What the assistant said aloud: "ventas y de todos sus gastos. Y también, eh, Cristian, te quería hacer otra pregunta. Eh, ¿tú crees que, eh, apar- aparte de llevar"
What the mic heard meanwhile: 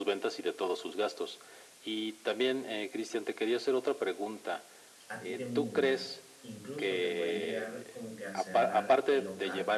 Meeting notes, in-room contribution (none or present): present